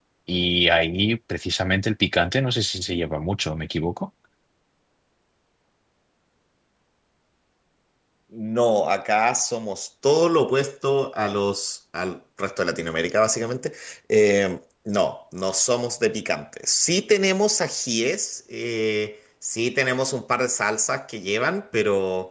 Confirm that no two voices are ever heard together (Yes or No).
Yes